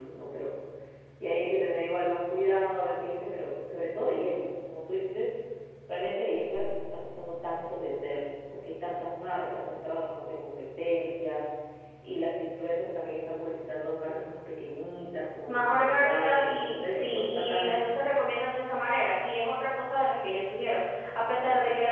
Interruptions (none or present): present